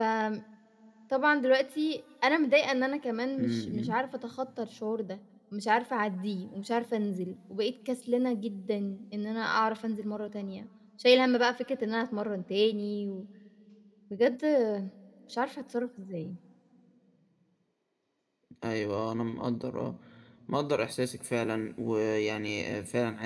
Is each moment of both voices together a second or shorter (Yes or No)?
Yes